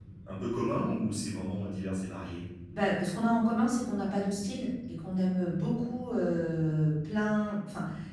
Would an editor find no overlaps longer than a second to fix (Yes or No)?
Yes